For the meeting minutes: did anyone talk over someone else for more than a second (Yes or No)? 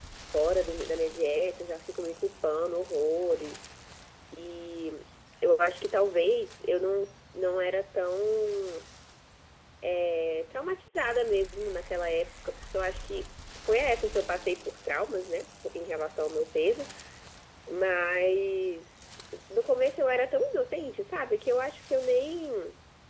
No